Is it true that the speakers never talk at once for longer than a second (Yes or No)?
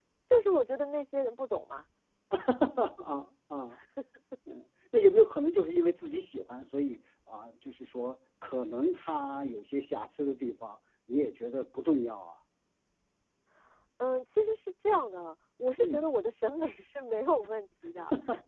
Yes